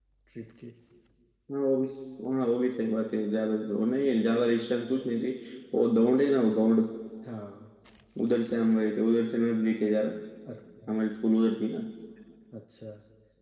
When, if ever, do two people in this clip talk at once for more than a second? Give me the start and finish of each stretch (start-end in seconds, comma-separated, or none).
none